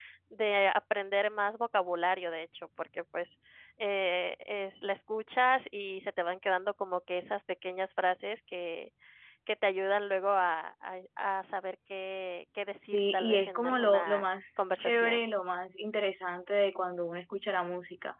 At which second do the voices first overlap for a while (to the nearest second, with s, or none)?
13 s